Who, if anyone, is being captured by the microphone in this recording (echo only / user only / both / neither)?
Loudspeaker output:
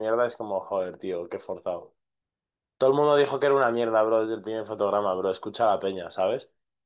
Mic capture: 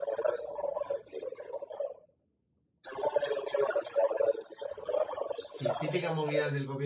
both